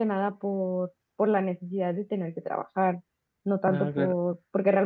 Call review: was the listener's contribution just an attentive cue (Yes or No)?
Yes